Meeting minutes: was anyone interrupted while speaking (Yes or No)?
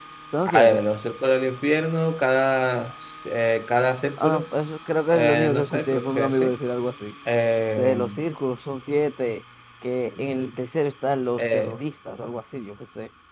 Yes